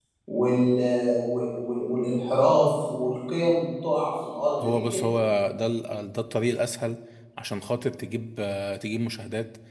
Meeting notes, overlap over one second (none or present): none